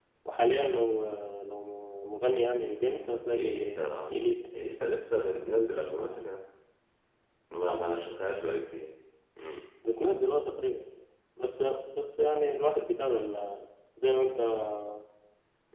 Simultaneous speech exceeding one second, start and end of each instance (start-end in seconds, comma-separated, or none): none